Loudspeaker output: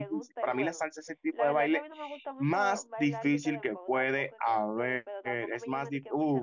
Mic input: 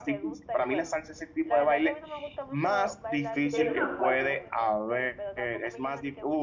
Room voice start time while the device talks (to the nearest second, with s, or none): 4 s